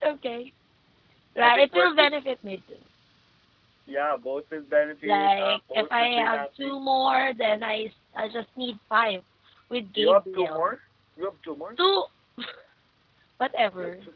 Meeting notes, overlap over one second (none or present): present